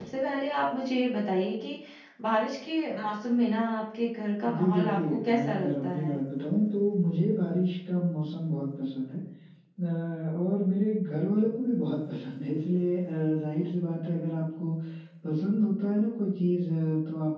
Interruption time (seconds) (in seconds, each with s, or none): 4.4 s